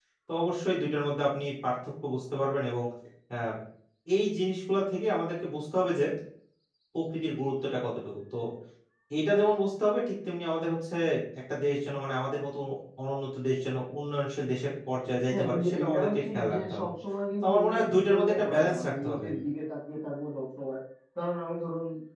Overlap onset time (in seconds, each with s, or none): 15.3 s